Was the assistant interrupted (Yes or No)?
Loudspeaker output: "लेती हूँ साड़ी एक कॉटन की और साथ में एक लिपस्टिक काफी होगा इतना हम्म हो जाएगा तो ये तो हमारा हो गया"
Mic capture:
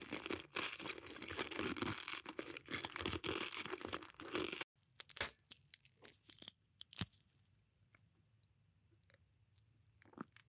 No